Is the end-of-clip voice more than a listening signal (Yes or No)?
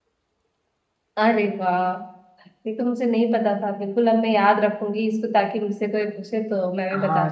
Yes